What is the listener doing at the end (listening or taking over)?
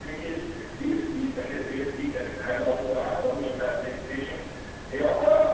listening